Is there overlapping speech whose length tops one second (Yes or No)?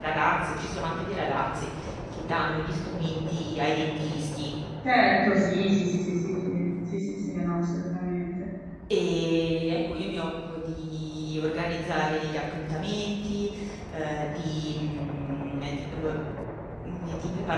No